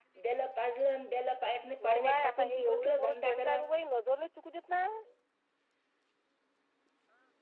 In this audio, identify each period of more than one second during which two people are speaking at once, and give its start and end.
1.8-3.6

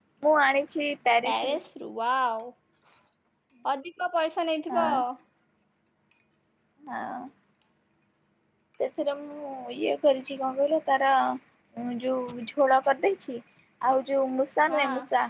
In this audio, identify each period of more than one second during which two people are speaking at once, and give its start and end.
none

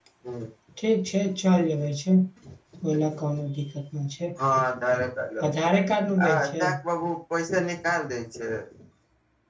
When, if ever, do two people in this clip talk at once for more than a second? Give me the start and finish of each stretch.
none

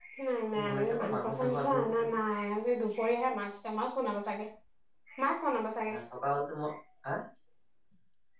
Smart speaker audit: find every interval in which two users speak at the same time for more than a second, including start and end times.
0.5-2.2

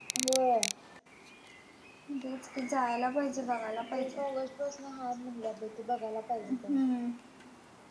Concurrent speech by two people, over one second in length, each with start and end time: none

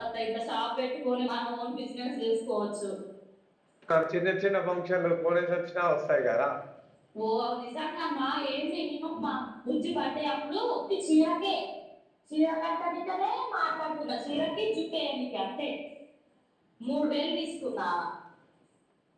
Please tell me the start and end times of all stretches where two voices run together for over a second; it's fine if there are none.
none

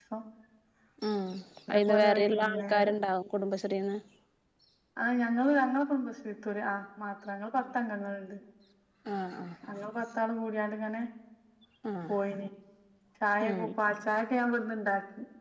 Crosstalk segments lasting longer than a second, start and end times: 1.7-2.9

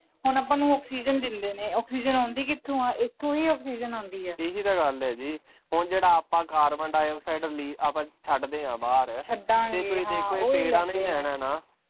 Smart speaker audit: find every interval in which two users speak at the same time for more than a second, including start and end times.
9.7-11.1

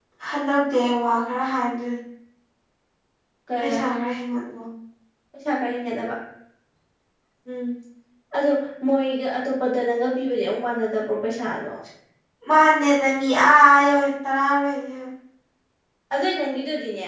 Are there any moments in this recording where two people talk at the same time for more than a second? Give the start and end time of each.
none

